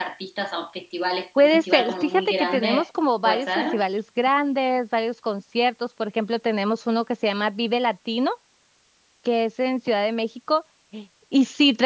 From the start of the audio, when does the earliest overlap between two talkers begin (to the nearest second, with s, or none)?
1 s